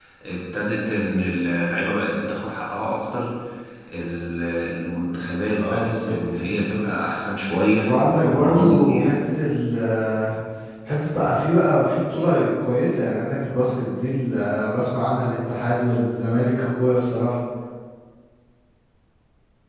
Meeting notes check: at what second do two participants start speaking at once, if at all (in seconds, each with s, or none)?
5.6 s